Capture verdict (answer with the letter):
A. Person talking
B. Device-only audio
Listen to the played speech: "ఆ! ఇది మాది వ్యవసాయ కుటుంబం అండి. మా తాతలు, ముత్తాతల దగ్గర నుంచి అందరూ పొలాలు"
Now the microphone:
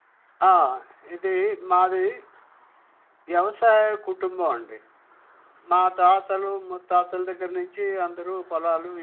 B